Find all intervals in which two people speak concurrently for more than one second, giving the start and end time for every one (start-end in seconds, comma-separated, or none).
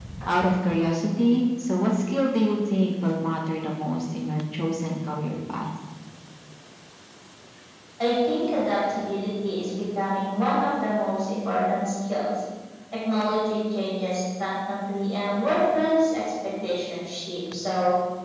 none